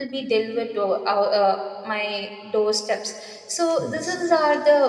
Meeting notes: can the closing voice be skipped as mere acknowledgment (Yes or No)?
Yes